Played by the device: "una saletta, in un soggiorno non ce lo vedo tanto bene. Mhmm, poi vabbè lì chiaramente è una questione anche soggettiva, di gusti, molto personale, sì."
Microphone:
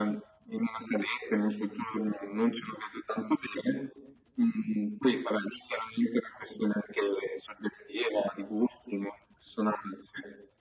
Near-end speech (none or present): none